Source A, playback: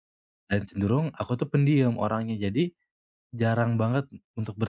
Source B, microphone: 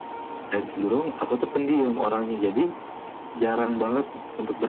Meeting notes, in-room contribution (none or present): none